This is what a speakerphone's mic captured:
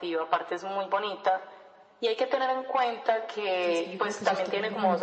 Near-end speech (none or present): present